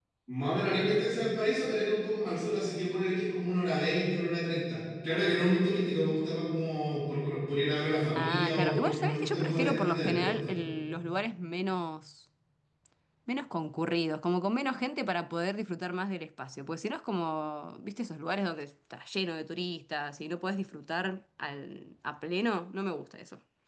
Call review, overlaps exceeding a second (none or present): present